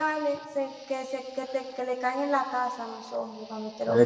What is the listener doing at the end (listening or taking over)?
taking over